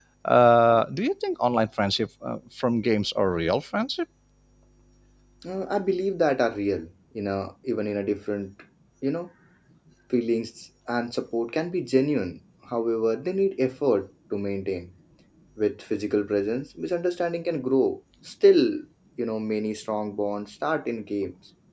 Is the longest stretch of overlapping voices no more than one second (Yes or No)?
Yes